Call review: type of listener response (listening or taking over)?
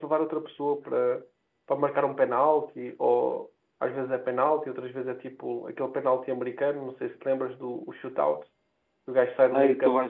taking over